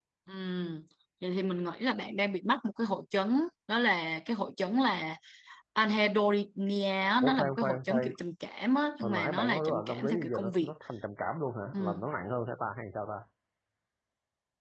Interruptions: present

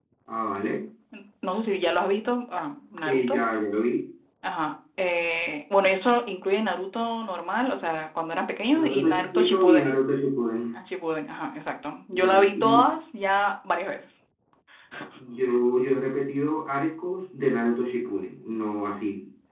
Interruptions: present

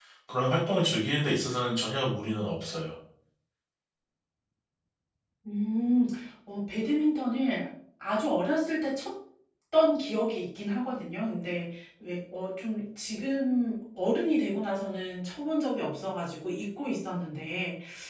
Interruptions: none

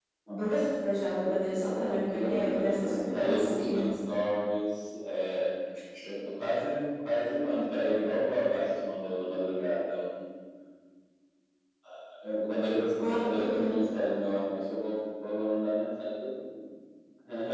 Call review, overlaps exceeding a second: present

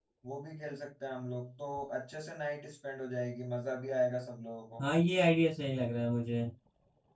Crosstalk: none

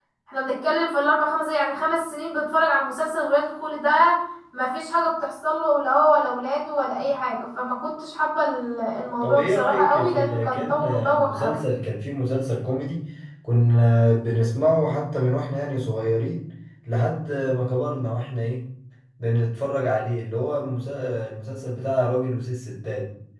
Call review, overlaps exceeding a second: present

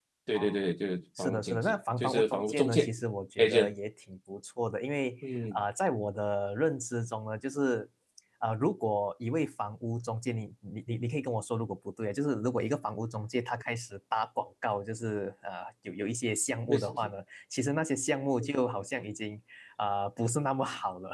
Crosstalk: present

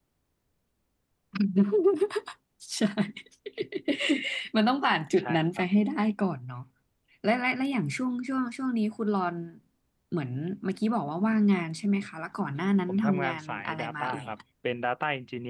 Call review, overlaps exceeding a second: present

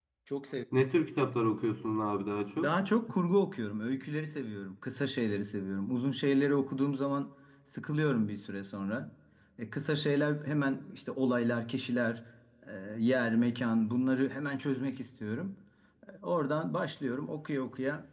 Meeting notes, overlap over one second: none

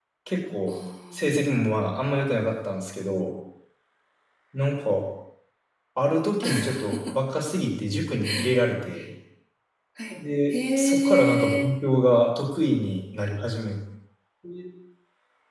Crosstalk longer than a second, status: present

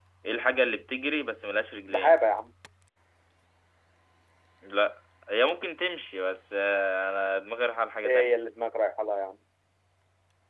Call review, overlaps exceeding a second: none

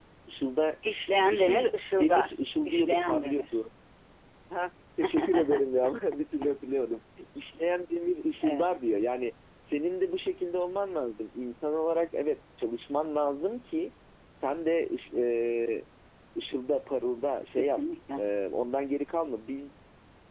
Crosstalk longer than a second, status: present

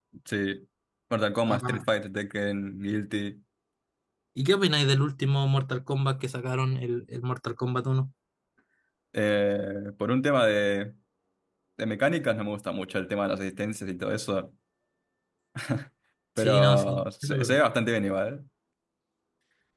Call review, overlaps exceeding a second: present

